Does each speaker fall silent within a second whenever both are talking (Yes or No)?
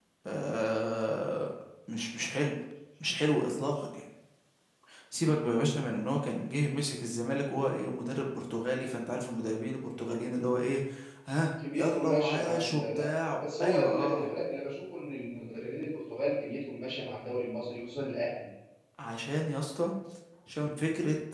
No